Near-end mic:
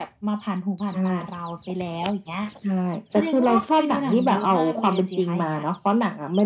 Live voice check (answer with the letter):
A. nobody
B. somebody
A